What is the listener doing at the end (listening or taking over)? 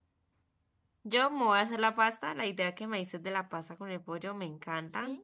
listening